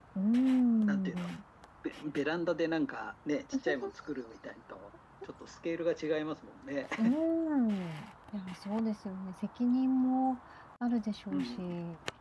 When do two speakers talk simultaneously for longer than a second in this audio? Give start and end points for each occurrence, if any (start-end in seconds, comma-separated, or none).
none